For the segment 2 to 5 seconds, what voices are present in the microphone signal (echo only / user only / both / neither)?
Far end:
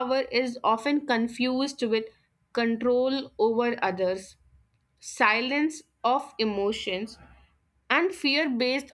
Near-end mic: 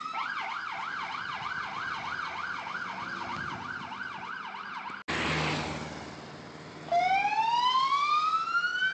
neither